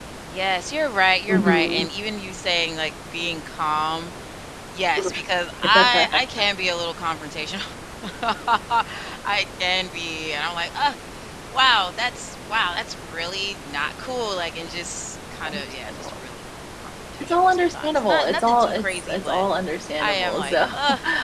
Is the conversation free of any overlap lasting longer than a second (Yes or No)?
No